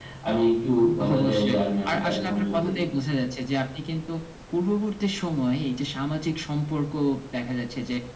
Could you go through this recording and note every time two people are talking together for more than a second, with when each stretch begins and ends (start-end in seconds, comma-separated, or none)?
1.1-2.7